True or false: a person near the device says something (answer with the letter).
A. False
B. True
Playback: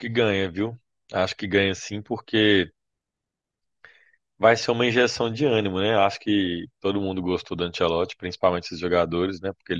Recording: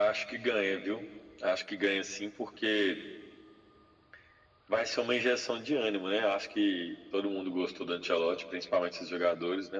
A